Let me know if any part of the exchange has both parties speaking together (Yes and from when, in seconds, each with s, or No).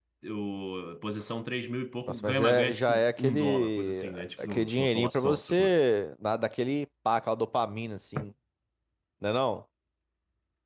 Yes, from 2.1 s